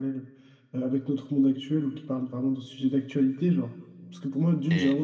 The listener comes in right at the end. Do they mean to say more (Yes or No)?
No